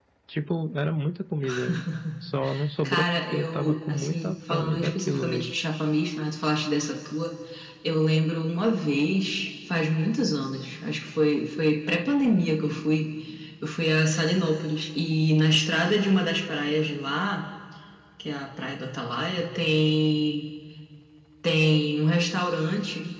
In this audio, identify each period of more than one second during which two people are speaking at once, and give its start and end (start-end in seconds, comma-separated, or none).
2.8-5.5